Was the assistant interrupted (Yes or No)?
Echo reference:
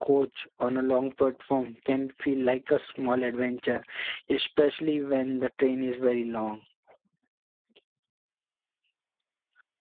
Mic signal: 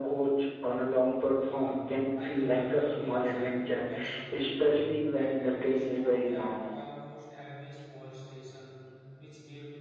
Yes